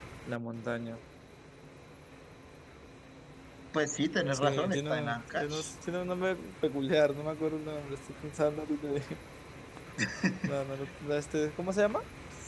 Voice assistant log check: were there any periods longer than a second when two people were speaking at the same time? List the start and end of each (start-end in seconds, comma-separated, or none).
4.3-5.7